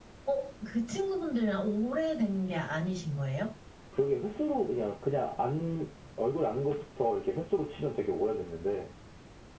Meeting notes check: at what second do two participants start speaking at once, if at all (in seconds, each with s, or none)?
none